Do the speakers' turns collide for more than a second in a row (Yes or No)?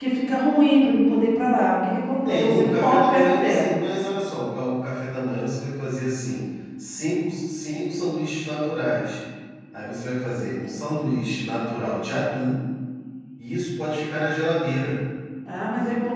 Yes